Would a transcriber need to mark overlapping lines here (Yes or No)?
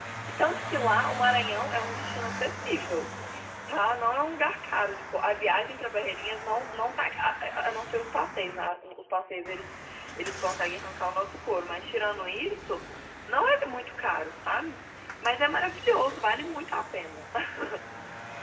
No